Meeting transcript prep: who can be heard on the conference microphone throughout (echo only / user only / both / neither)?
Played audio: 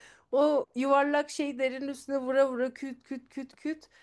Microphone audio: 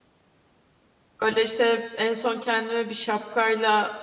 user only